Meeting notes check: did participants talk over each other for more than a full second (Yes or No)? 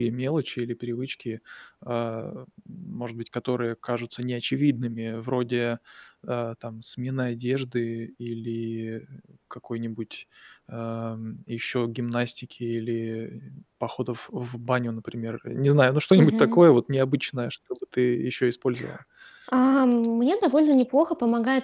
No